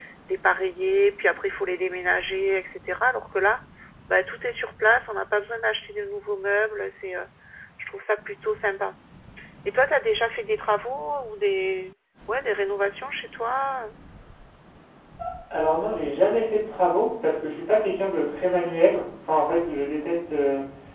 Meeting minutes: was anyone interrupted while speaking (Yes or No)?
No